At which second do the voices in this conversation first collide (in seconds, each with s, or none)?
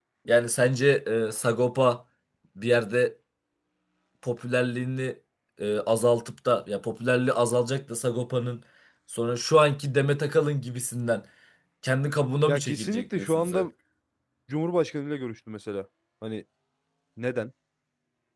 12.5 s